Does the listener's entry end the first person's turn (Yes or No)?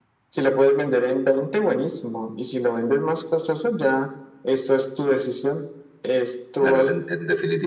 Yes